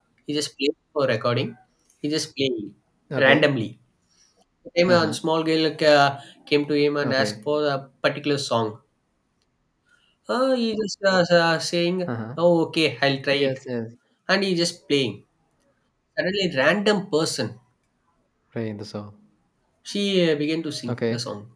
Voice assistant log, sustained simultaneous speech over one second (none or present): none